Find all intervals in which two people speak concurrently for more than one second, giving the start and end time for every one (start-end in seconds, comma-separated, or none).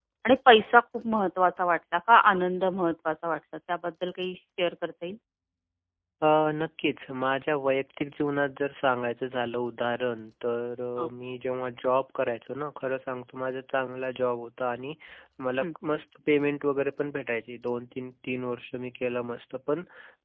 none